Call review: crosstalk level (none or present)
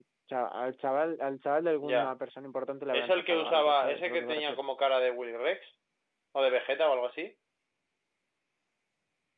present